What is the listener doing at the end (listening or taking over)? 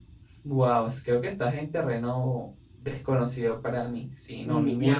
taking over